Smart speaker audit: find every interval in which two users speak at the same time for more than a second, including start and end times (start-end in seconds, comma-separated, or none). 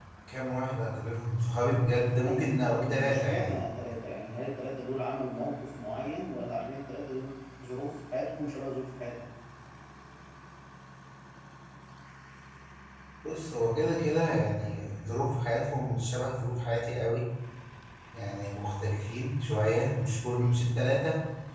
1.9-3.6